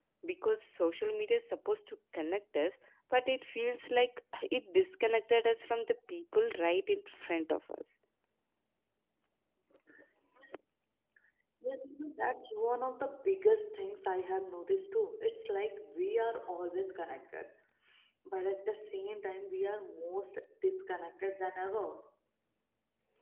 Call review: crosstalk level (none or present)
none